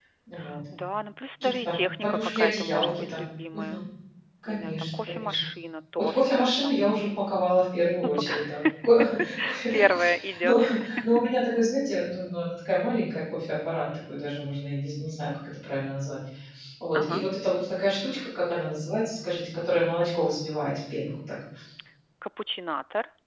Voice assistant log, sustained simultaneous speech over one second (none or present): present